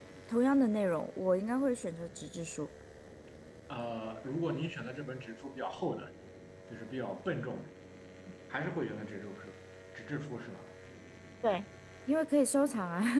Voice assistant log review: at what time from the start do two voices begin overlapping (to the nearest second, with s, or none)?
none